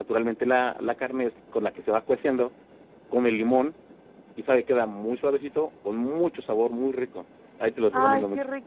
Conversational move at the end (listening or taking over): taking over